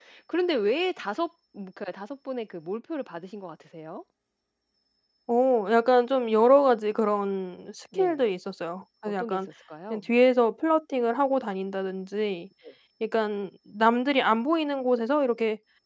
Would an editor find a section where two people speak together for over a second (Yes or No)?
No